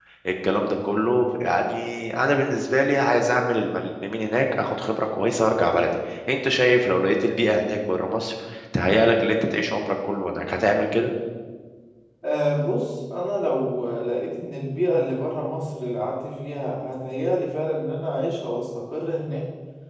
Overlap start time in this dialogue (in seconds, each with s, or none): none